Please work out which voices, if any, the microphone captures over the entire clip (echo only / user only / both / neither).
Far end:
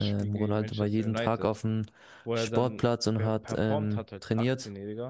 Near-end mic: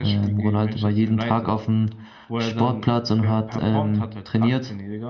echo only